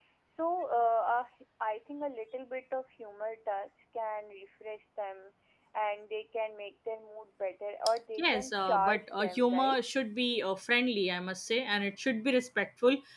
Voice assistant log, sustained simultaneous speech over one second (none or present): present